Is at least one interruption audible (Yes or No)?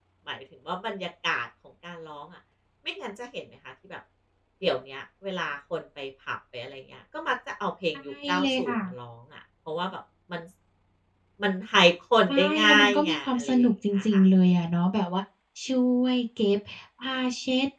Yes